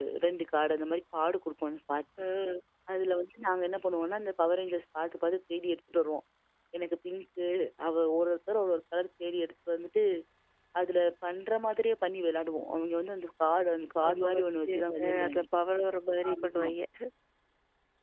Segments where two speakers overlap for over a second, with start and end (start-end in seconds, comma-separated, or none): 14.1-15.4